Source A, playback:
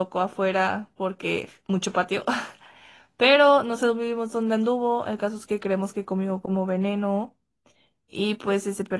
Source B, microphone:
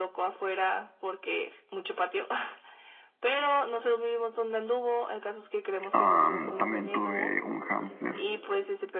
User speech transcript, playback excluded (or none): Am, también tuve un hámster